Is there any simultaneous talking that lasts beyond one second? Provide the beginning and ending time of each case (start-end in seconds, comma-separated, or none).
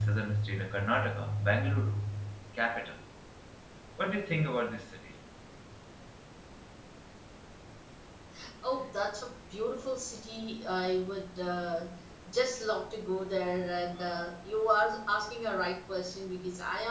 none